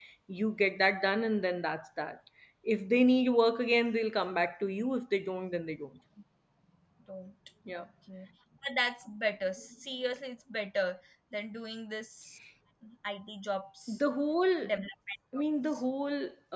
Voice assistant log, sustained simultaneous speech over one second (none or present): none